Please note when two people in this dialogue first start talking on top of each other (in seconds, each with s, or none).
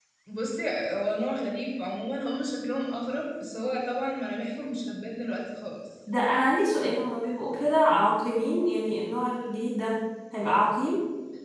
none